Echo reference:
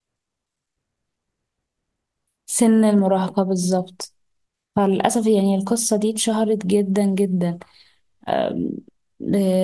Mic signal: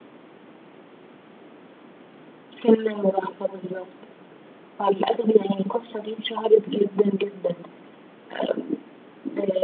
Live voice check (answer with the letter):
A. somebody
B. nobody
B